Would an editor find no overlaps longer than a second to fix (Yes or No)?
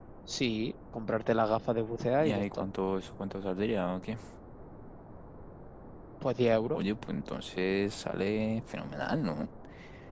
Yes